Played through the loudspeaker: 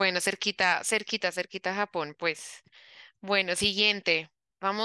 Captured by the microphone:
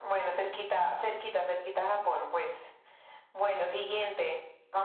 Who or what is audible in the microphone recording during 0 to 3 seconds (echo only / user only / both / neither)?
echo only